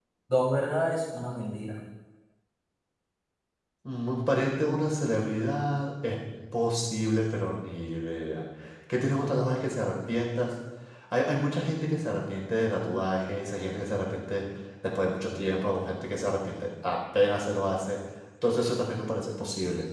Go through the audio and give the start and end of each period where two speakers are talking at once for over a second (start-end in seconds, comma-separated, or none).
none